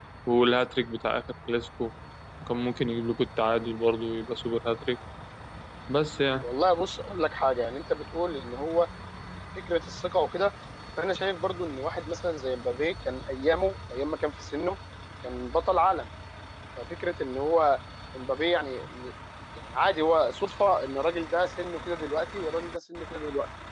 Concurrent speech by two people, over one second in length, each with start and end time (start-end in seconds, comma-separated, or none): none